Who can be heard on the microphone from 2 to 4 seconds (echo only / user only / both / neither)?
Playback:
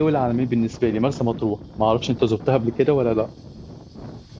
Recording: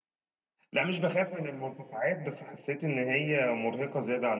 user only